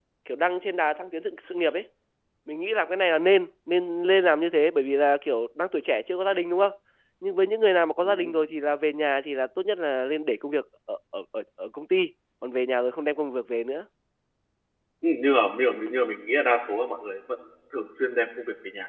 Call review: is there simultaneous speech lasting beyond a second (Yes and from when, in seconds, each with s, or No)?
No